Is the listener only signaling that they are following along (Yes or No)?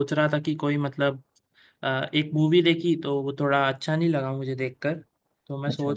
Yes